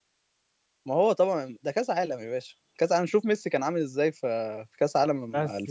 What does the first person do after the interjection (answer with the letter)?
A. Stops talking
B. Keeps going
A